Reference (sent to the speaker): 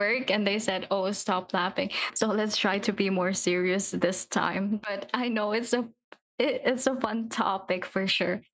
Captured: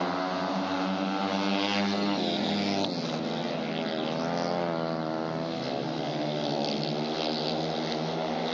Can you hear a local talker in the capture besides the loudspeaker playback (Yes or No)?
No